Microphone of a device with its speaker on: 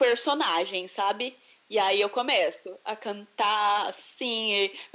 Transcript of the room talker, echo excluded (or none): none